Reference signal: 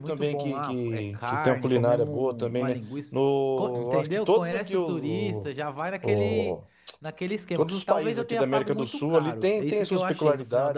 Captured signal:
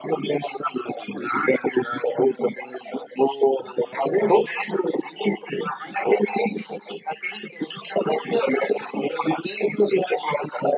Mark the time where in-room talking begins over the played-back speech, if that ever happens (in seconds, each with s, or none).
none